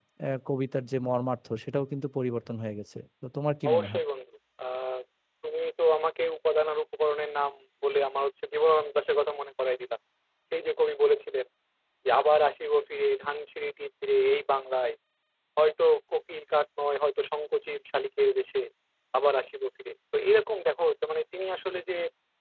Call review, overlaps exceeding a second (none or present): none